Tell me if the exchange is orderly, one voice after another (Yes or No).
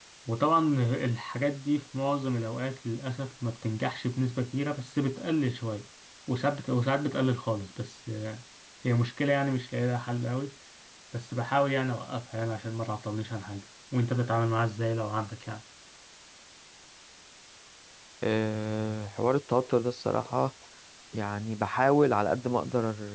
Yes